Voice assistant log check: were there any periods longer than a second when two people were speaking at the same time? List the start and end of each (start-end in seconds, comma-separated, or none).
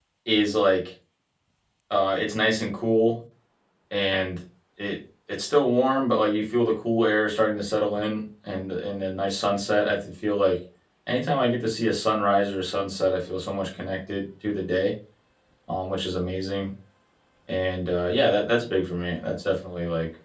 none